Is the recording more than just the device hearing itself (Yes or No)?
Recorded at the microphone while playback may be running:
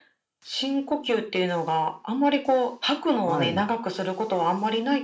Yes